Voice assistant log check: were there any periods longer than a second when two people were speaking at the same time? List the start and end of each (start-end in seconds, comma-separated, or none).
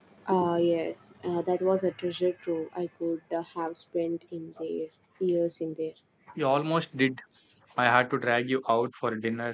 none